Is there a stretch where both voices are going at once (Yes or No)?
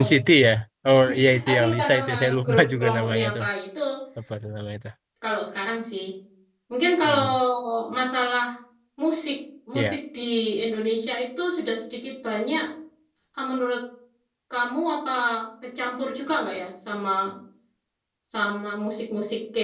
Yes